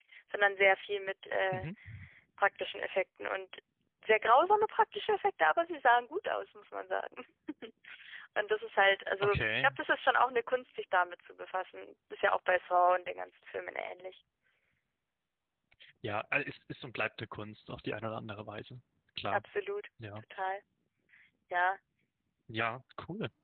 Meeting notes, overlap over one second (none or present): none